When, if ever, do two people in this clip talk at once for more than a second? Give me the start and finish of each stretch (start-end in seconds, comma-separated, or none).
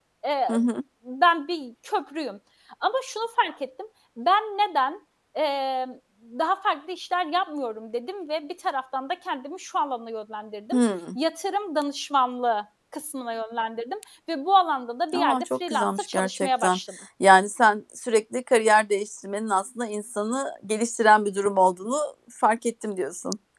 15.1-16.8